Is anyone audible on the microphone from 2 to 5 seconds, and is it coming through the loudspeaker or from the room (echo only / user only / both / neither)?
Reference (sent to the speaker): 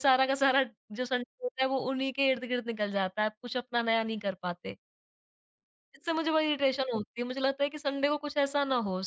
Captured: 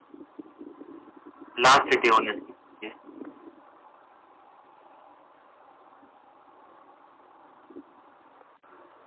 user only